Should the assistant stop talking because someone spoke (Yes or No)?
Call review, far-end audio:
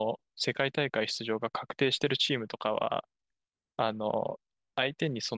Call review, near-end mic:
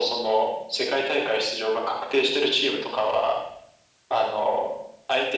No